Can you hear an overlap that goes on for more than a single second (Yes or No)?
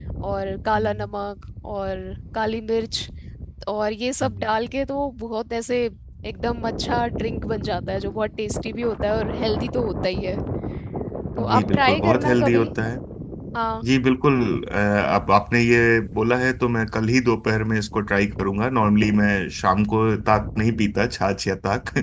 Yes